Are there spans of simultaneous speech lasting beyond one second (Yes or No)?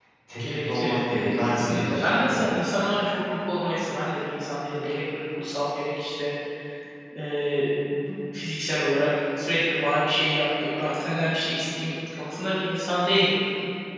Yes